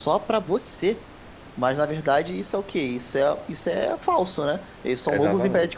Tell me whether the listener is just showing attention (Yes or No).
No